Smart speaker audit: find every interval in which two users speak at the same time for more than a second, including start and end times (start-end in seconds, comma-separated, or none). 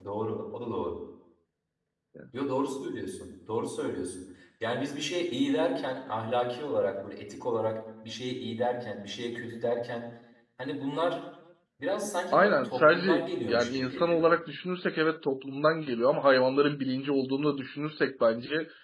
12.3-14.3